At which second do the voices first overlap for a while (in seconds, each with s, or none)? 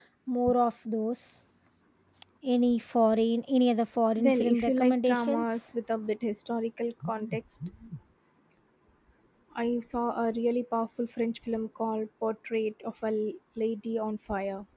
4.2 s